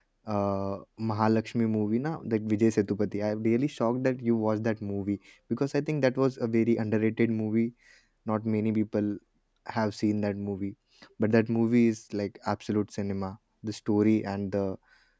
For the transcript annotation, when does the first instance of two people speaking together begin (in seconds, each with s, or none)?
none